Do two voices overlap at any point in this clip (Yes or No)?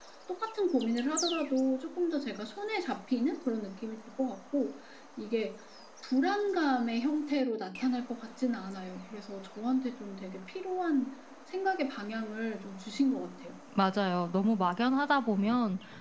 No